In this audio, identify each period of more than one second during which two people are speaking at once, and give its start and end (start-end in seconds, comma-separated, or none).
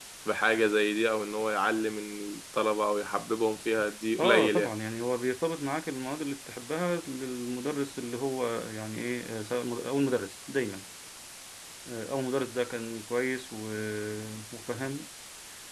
none